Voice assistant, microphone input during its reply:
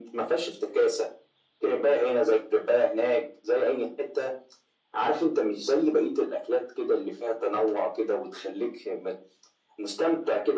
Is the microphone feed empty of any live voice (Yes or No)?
Yes